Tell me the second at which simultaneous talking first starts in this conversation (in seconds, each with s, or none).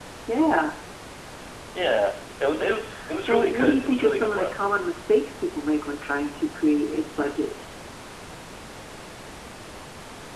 3.3 s